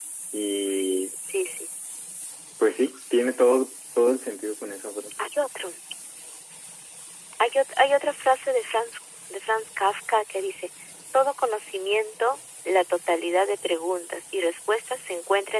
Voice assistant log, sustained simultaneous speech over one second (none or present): none